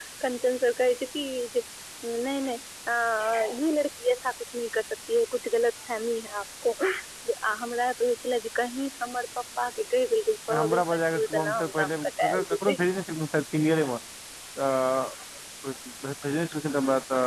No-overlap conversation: No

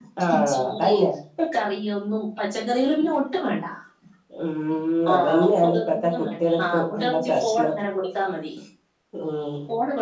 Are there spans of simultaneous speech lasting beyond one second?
Yes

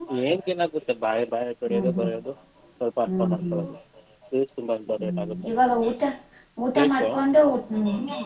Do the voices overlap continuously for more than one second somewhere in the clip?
No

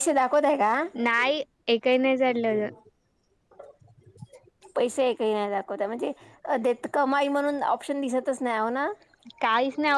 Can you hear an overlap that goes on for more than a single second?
No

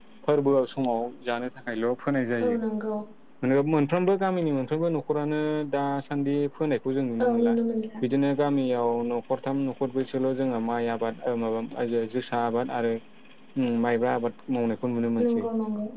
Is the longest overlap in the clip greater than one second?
No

